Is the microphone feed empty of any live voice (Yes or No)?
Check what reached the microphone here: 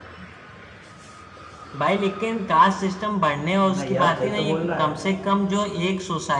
No